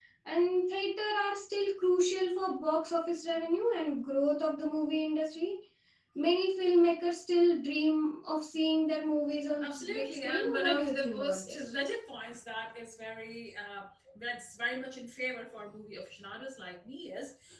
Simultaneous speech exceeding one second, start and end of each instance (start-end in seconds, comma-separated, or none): 9.6-11.6